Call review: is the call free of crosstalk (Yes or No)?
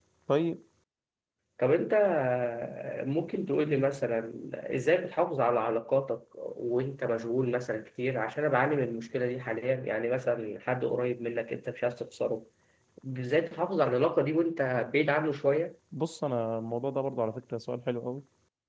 Yes